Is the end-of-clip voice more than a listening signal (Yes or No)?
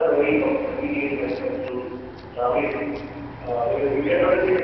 No